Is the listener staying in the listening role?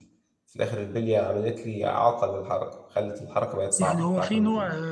No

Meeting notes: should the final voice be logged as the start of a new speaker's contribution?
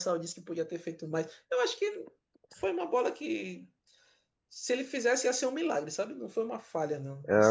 Yes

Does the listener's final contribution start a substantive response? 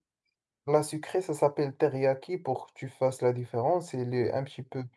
No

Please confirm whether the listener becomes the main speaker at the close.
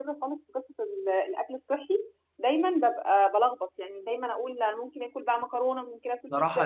Yes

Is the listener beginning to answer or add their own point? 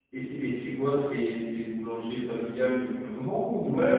Yes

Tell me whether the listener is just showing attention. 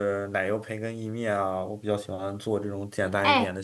No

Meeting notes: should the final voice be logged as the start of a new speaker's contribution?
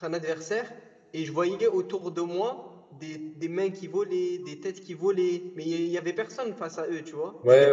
Yes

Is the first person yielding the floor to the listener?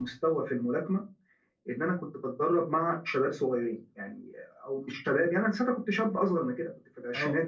No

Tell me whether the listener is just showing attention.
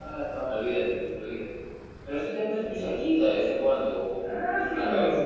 No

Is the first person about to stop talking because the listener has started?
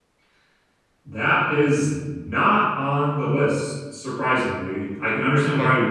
No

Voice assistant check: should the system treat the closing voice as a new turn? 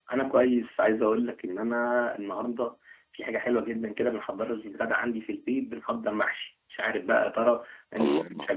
No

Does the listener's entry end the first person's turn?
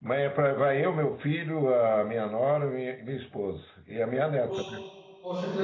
Yes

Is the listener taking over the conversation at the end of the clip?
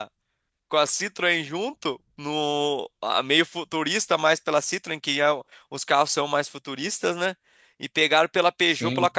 No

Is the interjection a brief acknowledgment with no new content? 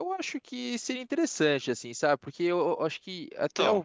Yes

